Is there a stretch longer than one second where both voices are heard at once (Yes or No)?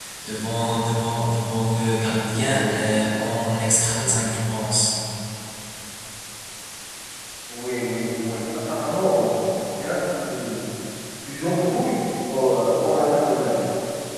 No